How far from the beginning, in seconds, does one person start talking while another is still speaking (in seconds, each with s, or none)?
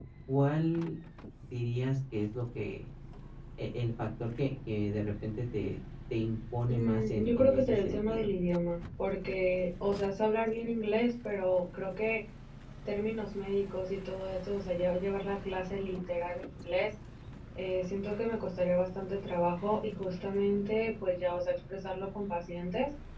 6.7 s